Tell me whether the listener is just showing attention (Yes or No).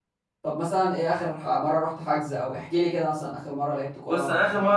No